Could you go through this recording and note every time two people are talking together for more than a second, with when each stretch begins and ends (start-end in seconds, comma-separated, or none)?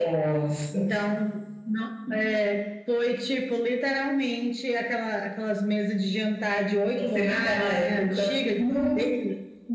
7.0-9.0